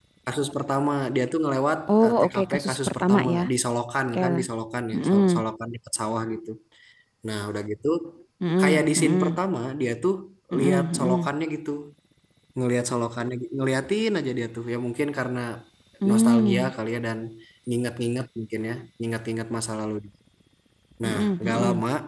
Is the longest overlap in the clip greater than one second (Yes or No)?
Yes